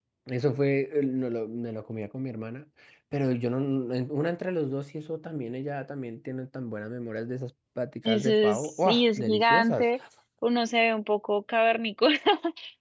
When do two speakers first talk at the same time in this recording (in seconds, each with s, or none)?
8.1 s